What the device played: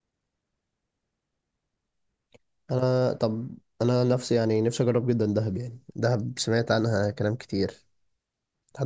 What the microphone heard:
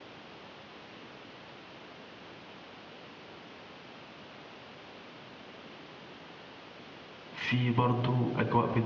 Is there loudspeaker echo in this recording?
No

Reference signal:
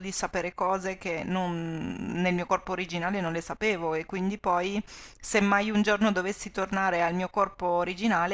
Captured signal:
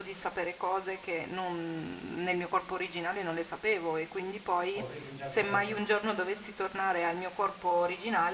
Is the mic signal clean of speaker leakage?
No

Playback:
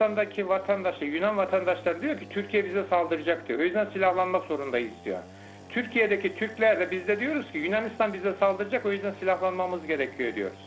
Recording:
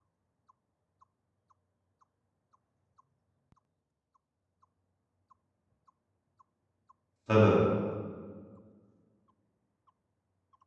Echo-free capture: Yes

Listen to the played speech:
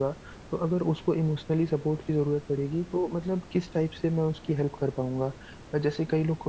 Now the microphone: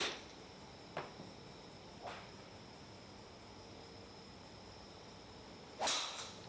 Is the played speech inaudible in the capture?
Yes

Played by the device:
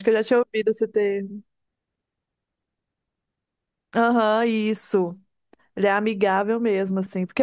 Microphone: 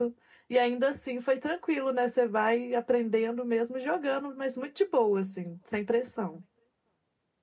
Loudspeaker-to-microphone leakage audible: No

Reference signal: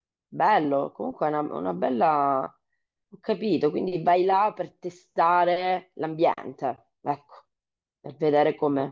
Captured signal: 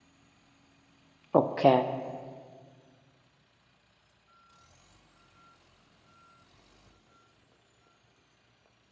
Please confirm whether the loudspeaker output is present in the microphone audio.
No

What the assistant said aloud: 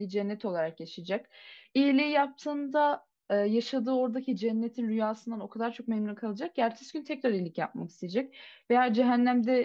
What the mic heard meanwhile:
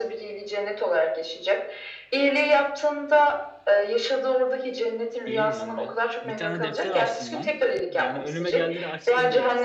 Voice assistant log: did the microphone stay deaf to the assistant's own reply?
No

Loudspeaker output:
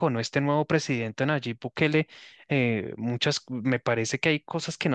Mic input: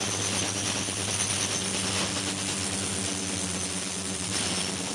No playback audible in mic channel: Yes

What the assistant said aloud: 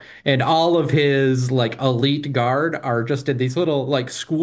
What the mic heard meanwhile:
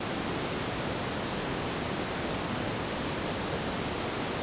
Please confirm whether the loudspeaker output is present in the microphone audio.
No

